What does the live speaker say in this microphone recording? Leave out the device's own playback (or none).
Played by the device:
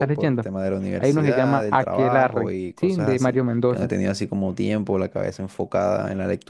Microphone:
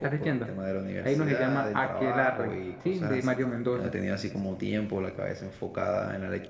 none